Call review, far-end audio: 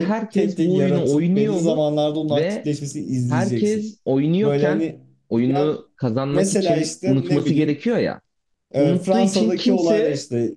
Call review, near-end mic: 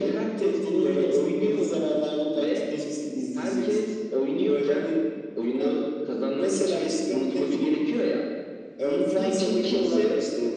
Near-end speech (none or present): none